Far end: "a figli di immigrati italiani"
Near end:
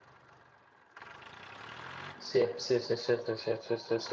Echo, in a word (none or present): none